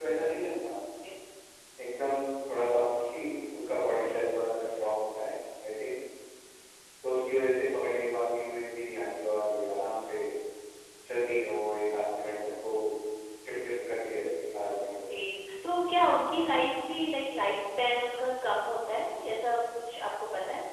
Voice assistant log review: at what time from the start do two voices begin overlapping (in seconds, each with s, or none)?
none